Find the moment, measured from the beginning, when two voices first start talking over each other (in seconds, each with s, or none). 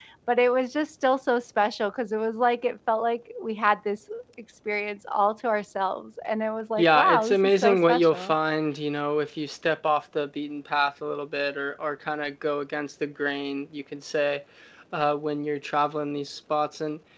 6.8 s